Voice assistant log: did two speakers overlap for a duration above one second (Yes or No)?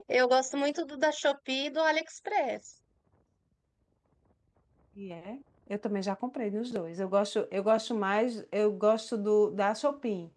No